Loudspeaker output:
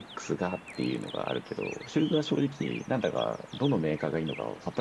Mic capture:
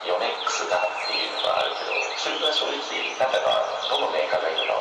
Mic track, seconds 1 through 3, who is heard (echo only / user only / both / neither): echo only